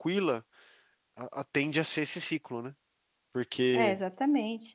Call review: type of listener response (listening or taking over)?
taking over